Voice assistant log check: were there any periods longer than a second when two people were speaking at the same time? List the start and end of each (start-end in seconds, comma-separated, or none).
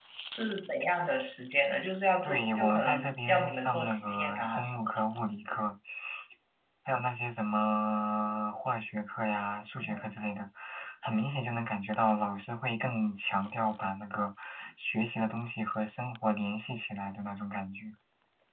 2.2-4.9